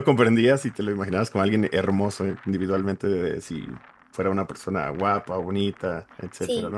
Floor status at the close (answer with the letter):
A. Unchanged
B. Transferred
B